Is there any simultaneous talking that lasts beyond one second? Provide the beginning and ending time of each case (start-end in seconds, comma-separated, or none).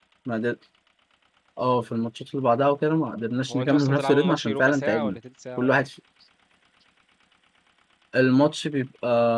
3.5-5.2